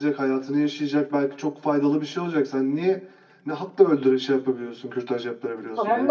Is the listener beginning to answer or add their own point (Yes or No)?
Yes